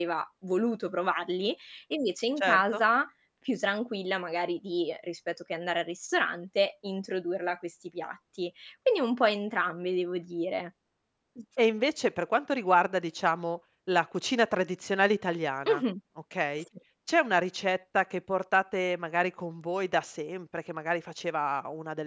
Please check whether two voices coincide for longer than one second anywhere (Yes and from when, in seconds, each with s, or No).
No